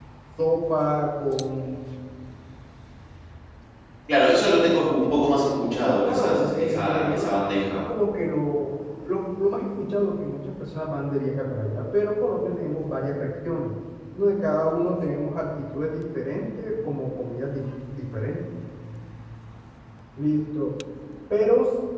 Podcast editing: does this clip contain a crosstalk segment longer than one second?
Yes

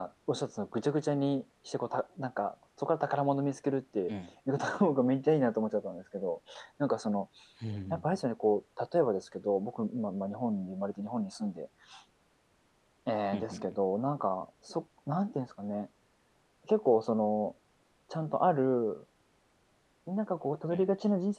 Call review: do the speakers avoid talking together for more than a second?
Yes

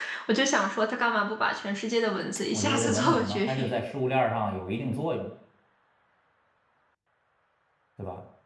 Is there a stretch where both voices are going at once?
Yes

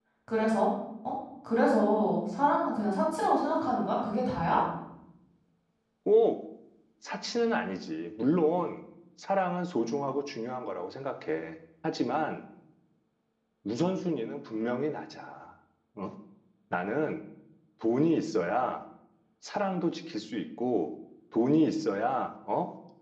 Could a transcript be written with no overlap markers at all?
Yes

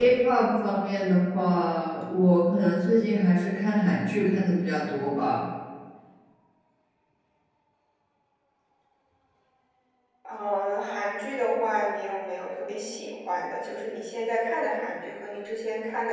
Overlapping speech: No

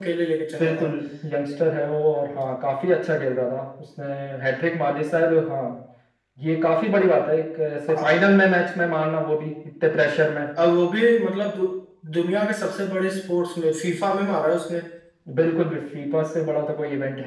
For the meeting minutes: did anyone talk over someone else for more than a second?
No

